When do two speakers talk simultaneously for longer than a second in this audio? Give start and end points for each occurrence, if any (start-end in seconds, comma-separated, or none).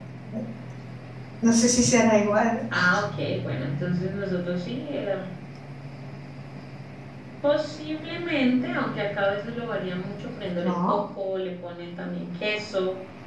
none